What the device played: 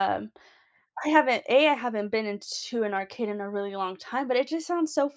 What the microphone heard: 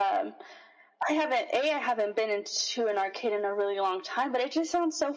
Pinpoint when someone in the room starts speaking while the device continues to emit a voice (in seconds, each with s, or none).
none